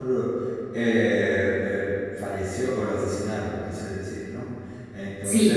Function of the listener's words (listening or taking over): taking over